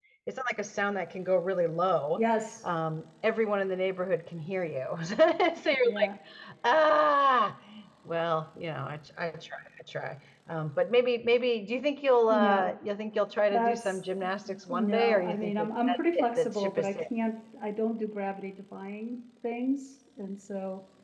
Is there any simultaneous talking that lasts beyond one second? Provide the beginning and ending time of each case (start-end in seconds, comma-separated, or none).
14.7-17.0